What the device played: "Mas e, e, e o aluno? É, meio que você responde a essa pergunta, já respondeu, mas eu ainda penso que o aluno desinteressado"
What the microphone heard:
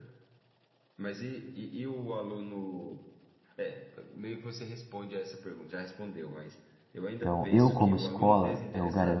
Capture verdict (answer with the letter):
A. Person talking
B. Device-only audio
A